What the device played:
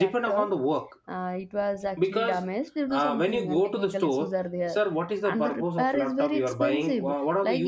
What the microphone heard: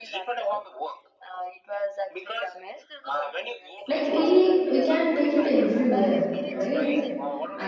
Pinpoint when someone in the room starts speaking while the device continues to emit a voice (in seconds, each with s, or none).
3.9 s